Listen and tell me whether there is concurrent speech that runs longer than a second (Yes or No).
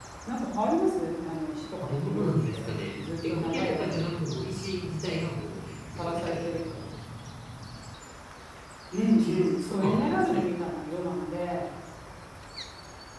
Yes